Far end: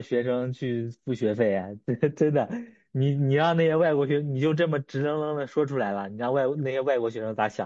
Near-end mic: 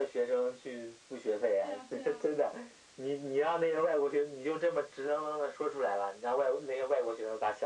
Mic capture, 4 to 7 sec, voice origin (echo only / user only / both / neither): echo only